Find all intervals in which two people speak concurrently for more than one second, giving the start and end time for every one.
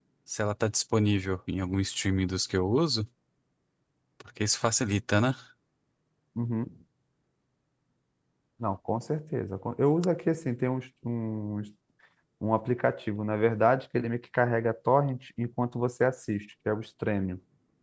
none

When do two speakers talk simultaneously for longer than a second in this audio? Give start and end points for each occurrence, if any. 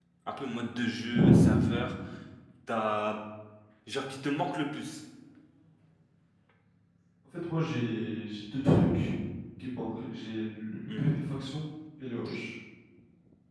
none

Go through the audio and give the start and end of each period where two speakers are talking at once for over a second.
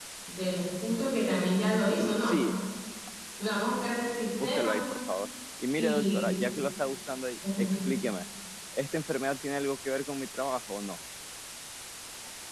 none

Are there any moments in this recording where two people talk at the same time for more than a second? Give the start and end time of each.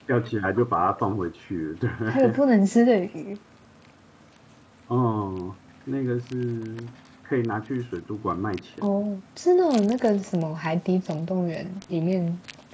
none

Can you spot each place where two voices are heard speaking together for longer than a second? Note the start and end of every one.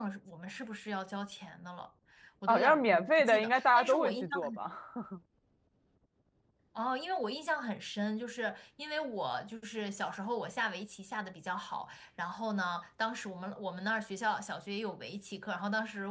2.5-4.5

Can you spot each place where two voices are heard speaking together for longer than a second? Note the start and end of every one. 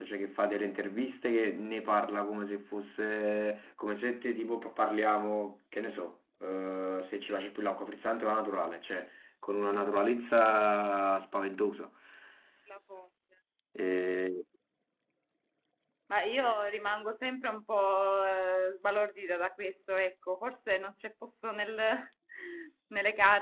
none

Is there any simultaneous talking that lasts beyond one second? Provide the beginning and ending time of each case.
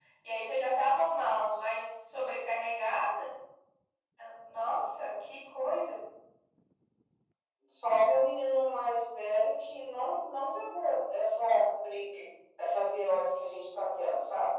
none

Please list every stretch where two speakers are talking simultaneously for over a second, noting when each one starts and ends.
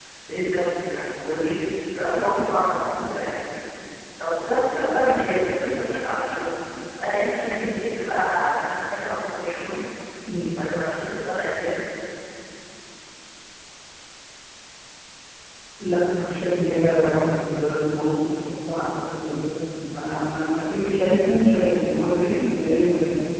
none

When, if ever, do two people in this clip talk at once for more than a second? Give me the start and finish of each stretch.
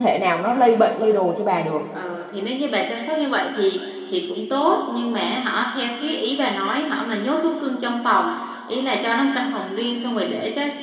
none

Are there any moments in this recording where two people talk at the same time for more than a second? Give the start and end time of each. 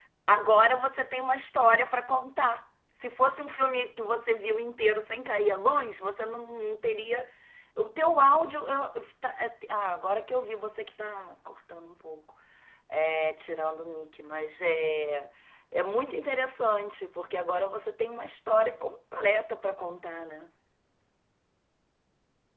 none

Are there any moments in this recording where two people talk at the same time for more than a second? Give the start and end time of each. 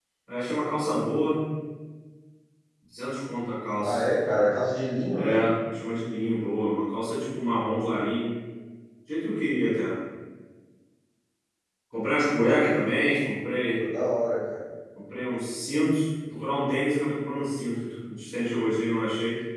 none

